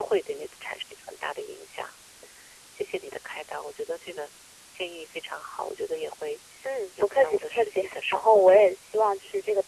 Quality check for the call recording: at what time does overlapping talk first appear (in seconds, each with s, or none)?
7.0 s